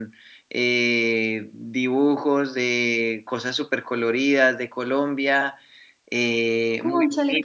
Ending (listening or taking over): taking over